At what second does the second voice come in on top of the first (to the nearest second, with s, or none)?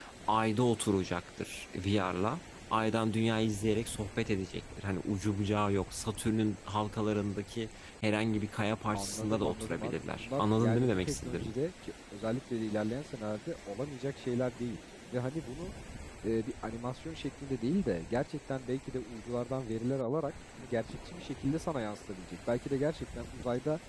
9 s